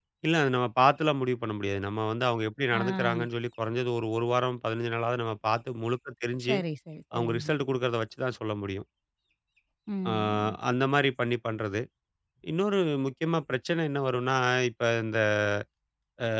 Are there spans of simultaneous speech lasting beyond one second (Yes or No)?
No